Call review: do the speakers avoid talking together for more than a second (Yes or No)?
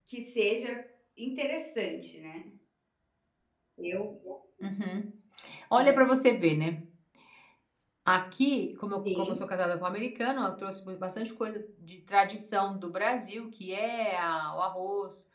Yes